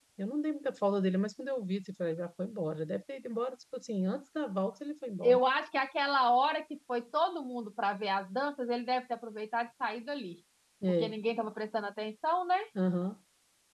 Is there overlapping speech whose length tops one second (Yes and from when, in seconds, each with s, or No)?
No